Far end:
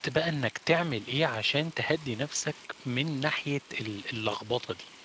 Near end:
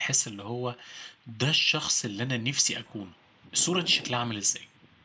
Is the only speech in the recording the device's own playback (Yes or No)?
No